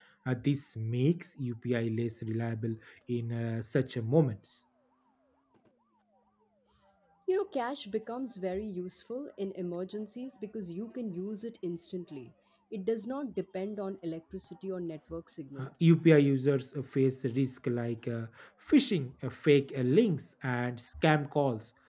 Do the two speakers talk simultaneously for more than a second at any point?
No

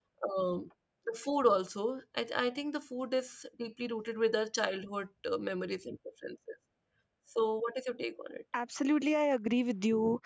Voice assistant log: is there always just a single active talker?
Yes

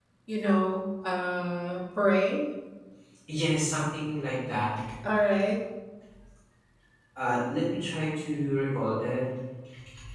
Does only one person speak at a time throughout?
Yes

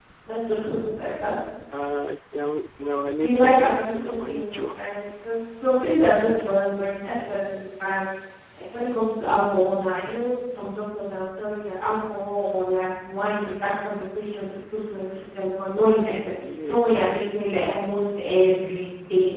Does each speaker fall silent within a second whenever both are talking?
No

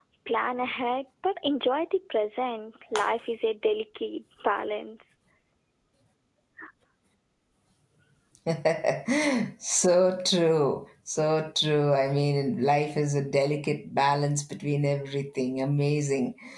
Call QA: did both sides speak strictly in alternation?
Yes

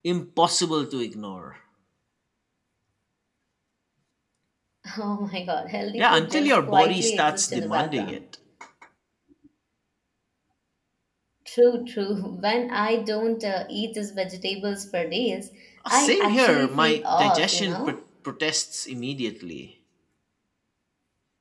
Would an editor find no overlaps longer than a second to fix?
No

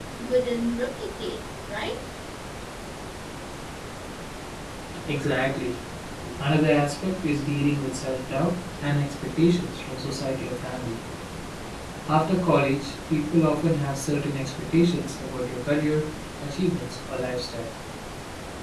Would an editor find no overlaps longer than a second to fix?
Yes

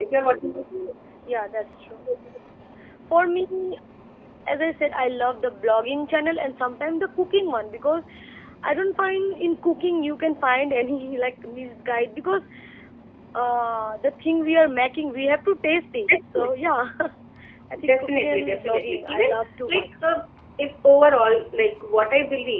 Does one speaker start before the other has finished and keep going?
Yes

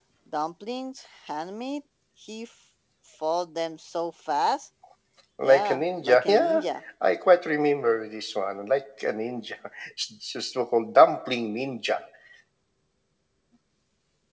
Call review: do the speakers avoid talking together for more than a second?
No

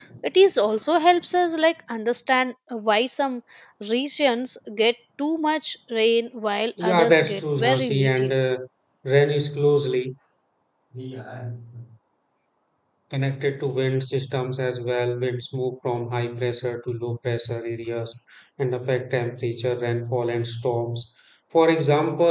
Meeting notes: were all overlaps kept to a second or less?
No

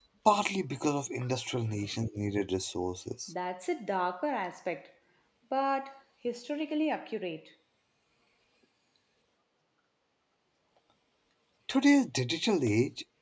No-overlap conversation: Yes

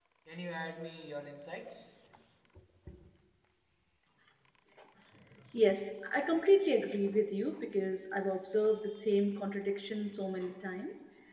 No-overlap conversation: Yes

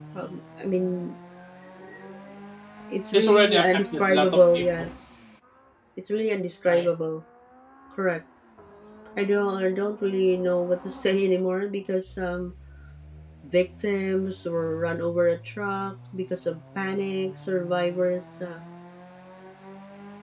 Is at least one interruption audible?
Yes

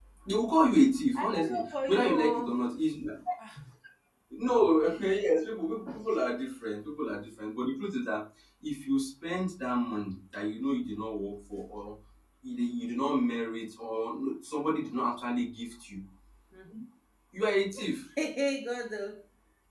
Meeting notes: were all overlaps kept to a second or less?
No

